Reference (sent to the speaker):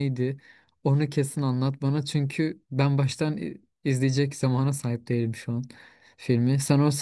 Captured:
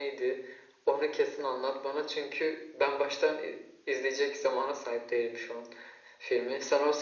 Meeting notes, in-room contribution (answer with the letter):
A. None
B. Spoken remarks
A